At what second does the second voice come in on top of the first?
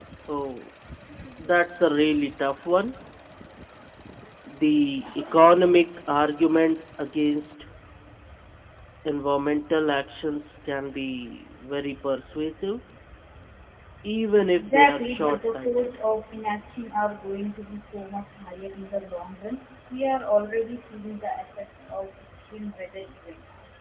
14.6 s

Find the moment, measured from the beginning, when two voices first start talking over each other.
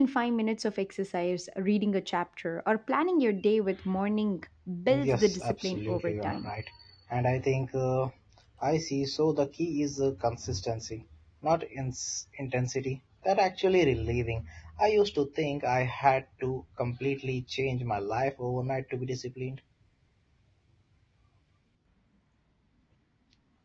4.9 s

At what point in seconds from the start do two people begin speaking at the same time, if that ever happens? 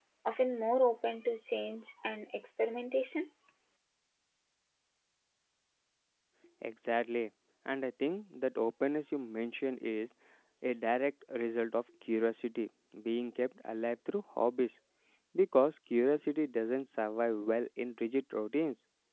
none

